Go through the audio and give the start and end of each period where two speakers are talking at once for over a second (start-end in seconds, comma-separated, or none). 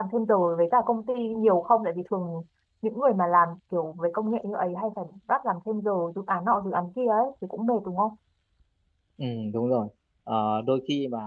none